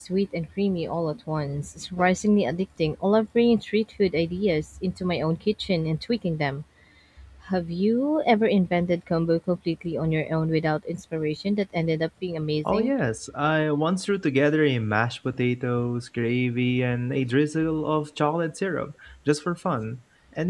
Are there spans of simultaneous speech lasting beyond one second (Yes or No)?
No